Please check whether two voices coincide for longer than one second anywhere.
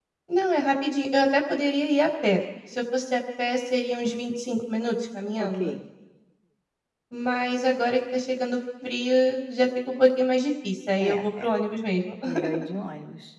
No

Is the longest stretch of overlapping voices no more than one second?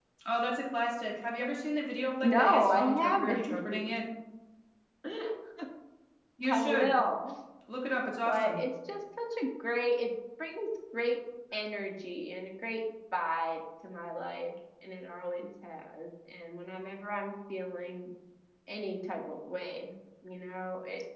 No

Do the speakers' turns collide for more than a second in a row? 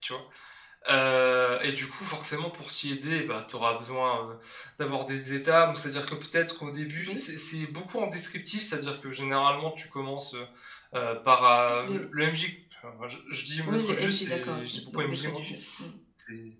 Yes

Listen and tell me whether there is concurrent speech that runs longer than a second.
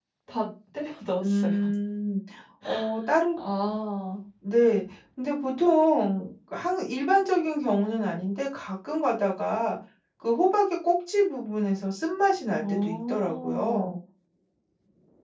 Yes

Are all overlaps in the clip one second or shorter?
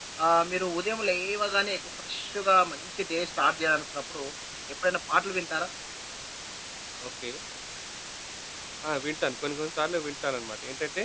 Yes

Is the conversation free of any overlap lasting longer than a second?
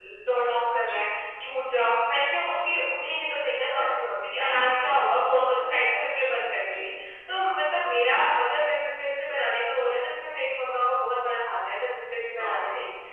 Yes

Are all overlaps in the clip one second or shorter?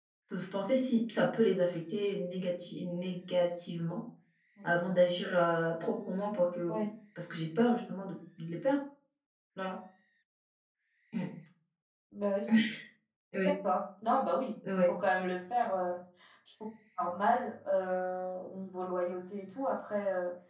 Yes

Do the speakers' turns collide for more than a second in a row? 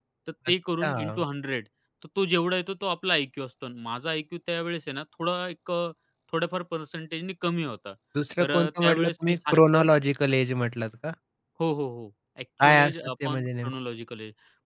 Yes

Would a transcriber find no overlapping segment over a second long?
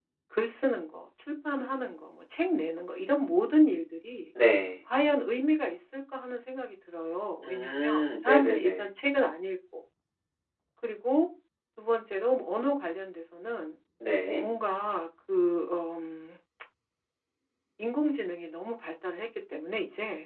No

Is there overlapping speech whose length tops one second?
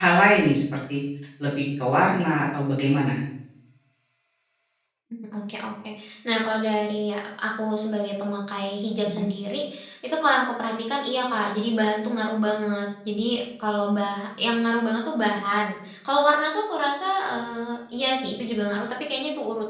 No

